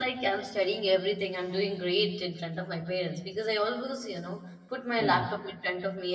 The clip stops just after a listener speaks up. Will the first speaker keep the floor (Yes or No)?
Yes